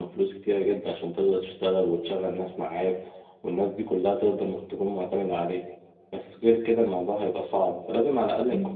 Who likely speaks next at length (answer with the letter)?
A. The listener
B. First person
A